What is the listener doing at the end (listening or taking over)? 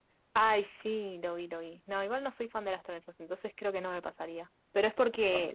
listening